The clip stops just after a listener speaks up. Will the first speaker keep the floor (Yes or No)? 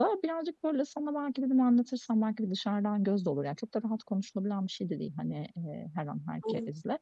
Yes